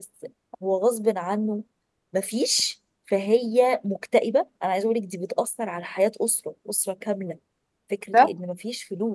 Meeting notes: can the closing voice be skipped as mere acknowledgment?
Yes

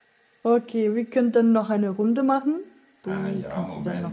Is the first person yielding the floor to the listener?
Yes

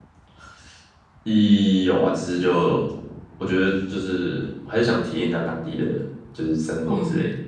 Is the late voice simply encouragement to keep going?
No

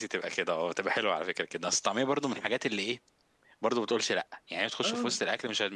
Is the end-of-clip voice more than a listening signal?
No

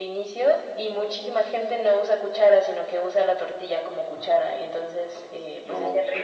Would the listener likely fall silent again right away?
Yes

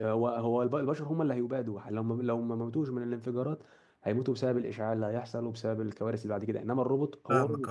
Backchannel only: Yes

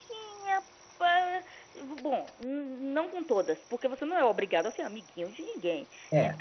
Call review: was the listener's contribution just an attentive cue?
Yes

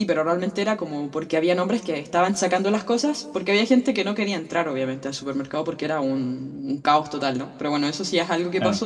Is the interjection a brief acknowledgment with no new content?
Yes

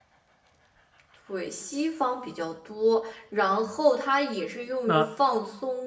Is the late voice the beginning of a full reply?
No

